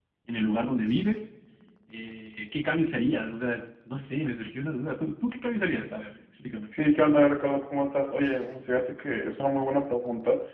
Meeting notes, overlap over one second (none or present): none